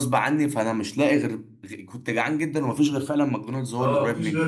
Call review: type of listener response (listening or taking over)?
taking over